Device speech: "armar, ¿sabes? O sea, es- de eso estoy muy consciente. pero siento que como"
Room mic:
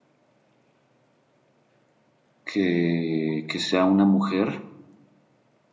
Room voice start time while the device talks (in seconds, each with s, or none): 2.5 s